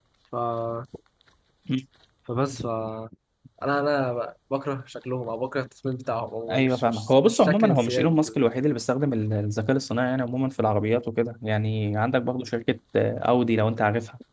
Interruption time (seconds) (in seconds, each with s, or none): 6.5 s